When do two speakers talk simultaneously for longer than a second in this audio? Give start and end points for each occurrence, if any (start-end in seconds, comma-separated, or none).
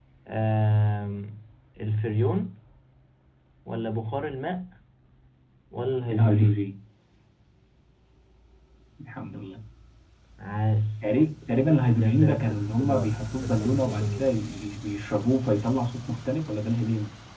12.0-14.2